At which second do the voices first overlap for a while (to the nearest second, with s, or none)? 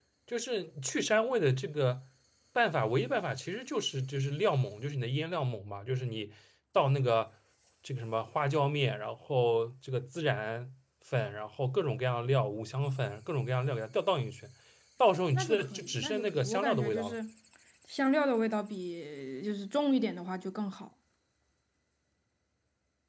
15 s